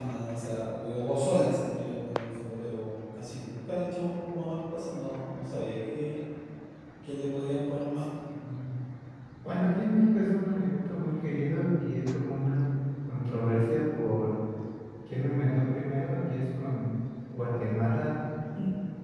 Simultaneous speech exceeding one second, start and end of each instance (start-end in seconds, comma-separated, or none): none